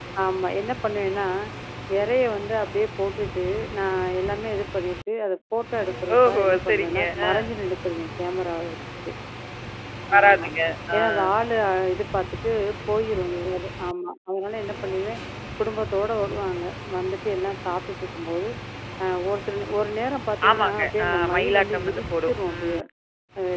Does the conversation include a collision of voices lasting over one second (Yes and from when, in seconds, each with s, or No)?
Yes, from 6.3 s